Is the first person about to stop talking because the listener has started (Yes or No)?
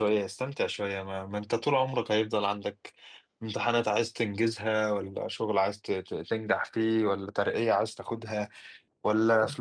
No